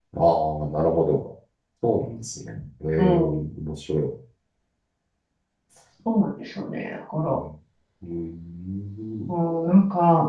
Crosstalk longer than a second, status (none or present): none